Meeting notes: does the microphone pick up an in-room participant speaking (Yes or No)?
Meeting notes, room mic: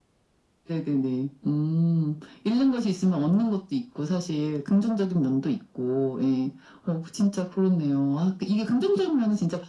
No